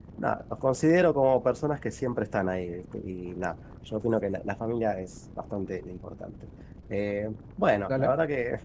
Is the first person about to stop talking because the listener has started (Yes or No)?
No